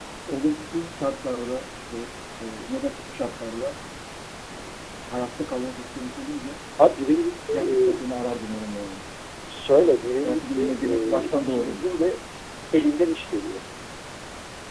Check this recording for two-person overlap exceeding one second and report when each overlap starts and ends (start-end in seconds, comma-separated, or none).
10.1-11.9